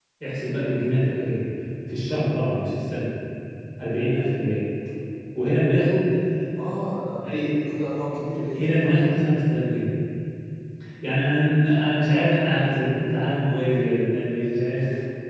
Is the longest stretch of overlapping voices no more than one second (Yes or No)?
Yes